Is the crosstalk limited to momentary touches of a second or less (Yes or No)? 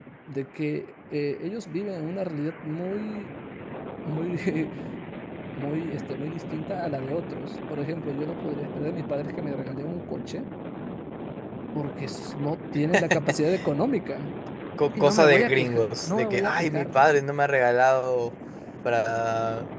No